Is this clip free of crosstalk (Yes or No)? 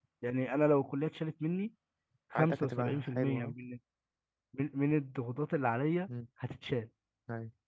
No